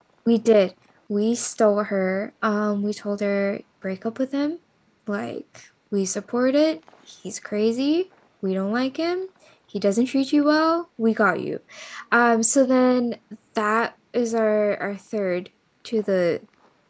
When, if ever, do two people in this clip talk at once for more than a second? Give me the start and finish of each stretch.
none

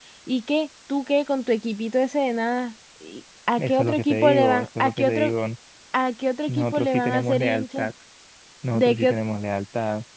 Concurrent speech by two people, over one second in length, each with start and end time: 3.6-5.3, 6.5-7.9

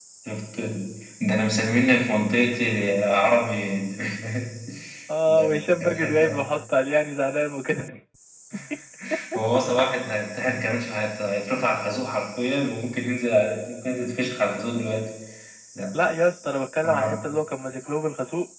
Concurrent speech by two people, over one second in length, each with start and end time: 5.3-6.5

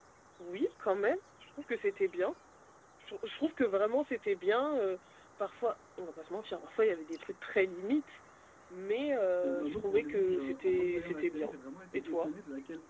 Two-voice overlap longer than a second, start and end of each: 9.4-11.5

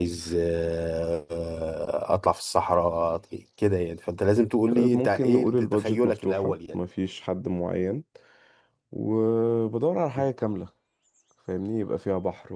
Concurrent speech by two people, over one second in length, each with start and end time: 4.7-6.8

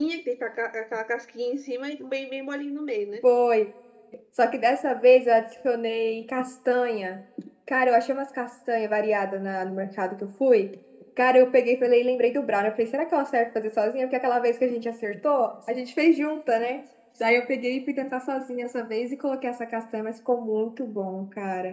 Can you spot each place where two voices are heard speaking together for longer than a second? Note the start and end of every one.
none

